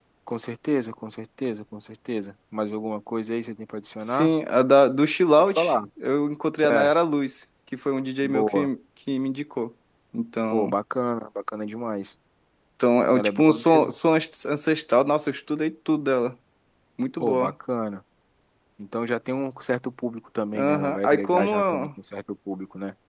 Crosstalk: present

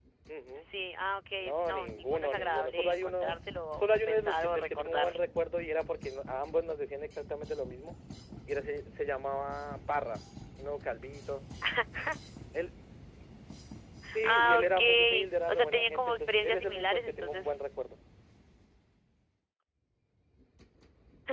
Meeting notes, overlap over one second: present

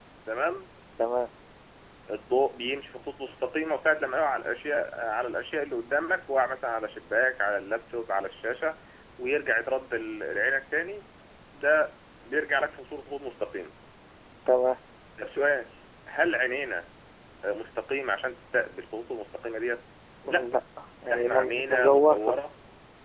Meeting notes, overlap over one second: present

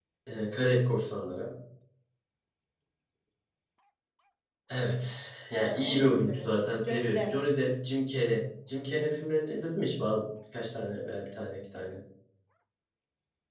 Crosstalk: present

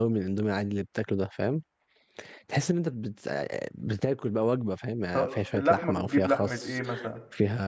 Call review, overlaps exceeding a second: present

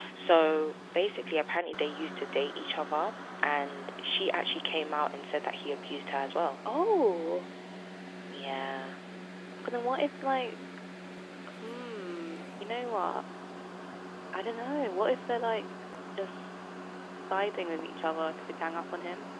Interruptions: none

